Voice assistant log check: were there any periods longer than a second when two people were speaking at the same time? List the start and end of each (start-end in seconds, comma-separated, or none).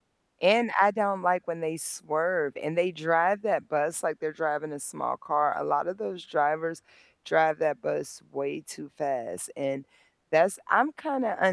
none